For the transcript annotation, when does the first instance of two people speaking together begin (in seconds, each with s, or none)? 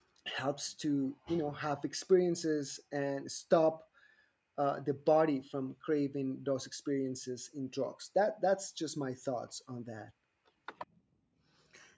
none